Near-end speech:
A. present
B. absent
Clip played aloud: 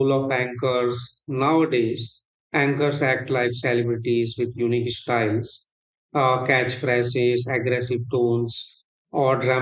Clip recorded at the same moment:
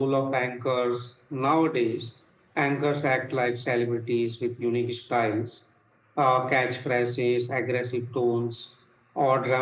B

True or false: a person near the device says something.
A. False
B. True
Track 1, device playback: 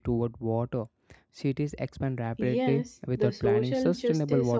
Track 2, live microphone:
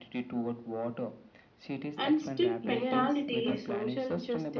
B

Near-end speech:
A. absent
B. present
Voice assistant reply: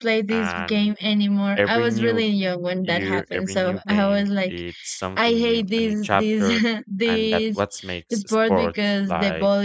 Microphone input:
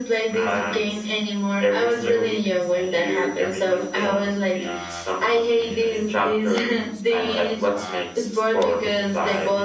B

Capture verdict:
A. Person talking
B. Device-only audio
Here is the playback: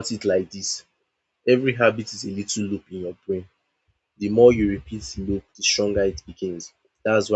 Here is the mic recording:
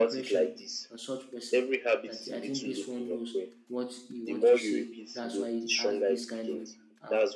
A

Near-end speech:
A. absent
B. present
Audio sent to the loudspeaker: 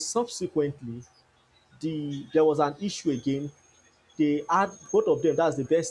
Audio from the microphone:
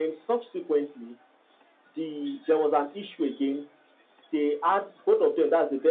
A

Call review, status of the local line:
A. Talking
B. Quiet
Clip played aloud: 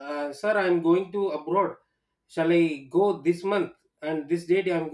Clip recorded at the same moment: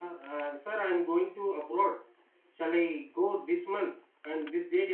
B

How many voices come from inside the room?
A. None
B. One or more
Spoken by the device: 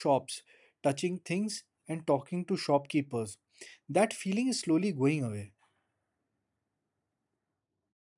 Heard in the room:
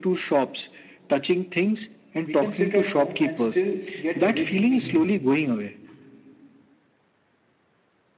B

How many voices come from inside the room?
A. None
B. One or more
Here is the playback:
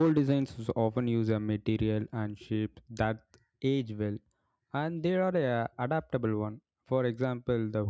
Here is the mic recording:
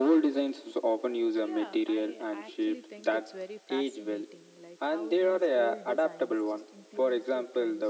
B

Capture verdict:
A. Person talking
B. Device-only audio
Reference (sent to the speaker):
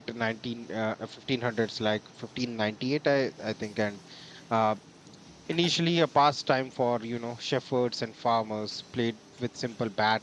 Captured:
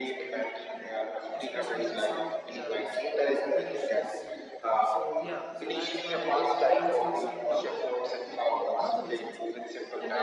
A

